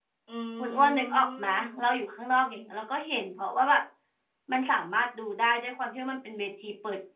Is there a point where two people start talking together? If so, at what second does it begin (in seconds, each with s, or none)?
0.6 s